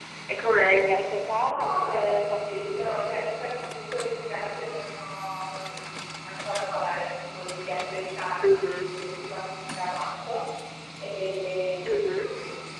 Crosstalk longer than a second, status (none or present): present